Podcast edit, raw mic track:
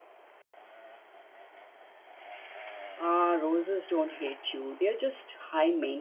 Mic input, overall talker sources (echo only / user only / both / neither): user only